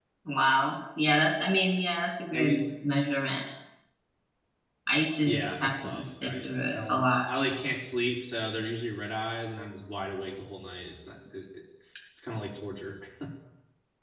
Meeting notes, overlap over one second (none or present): present